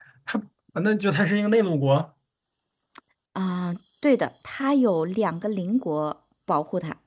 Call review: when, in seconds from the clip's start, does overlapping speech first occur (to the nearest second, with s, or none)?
none